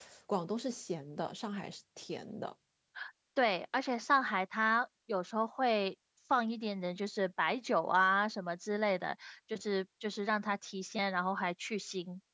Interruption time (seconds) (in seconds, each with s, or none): none